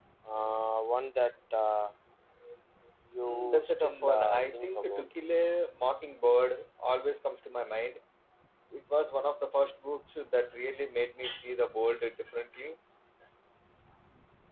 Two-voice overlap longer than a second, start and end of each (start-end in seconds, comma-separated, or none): 3.2-5.0